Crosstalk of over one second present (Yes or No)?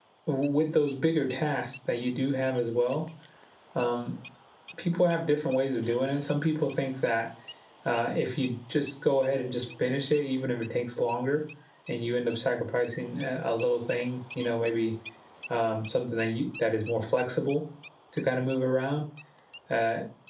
No